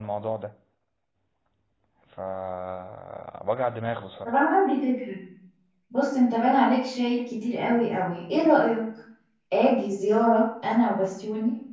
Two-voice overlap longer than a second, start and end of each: none

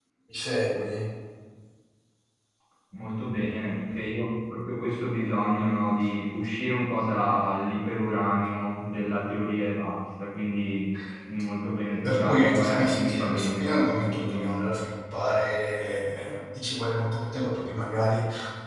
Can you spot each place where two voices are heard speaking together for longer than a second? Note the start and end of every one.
12.0-14.9

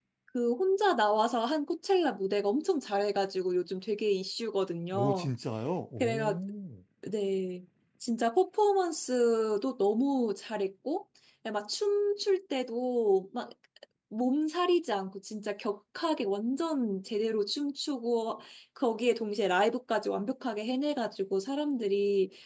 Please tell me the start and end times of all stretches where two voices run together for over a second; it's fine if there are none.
none

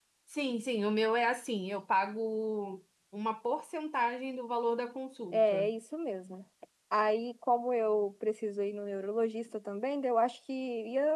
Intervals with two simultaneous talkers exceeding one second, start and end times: none

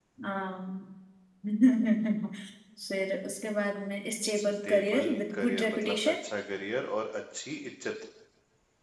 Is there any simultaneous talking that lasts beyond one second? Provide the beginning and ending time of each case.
4.4-6.1

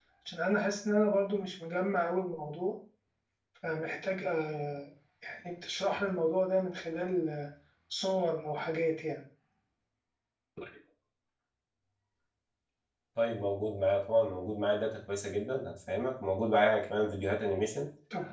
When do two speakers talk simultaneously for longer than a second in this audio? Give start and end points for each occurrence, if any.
none

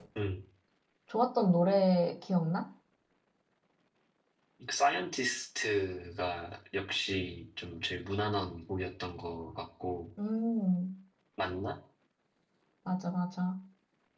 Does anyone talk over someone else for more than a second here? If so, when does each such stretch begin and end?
none

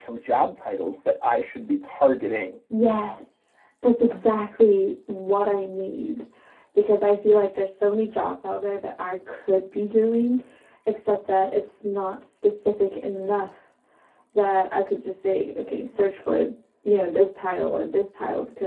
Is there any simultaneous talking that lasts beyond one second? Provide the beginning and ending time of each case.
none

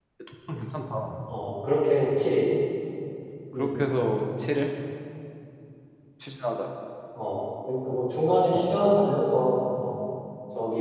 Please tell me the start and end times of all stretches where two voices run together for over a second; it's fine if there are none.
none

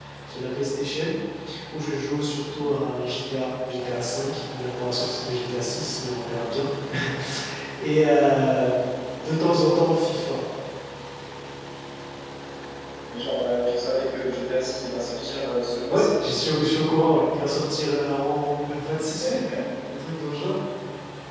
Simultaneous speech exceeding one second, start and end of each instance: none

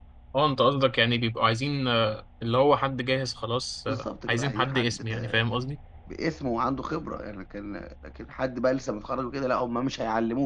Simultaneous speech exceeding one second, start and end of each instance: 3.9-5.4

